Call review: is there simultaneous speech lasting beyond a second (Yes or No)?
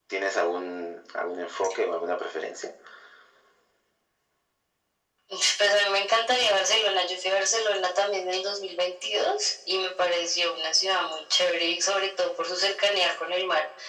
No